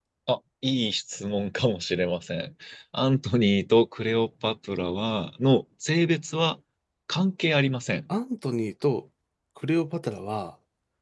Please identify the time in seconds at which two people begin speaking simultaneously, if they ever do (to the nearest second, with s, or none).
none